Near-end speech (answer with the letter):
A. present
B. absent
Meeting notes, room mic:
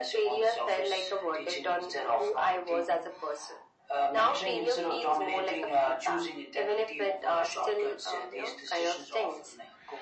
B